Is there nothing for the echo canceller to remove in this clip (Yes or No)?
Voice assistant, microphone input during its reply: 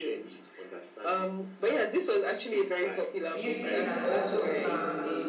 No